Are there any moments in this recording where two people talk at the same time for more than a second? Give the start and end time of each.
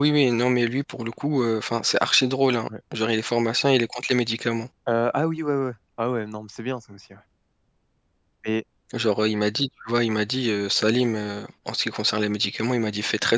none

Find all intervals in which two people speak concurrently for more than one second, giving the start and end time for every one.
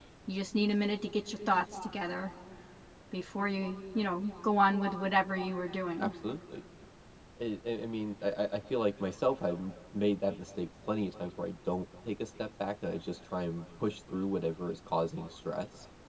none

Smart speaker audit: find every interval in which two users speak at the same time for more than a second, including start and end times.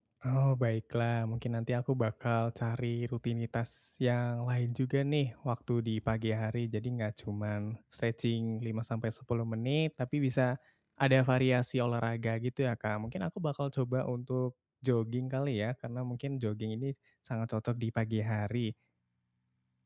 none

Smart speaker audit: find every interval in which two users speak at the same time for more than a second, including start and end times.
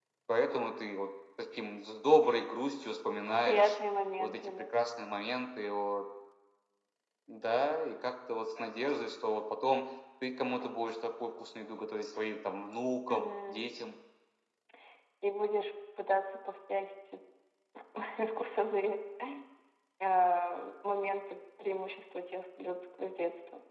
none

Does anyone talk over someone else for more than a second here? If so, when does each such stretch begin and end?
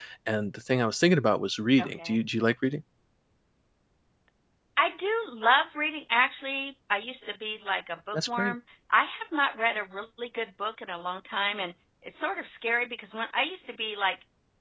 none

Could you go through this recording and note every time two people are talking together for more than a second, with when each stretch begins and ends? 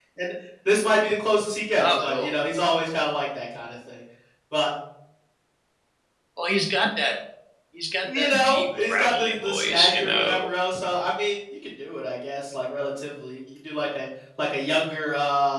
8.0-10.5

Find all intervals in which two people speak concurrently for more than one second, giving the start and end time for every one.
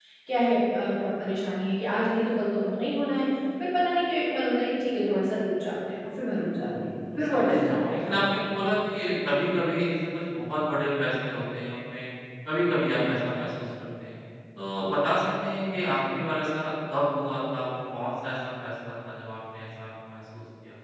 6.4-8.2

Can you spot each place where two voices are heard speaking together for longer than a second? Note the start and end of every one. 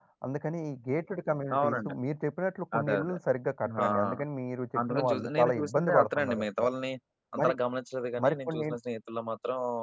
4.8-6.7

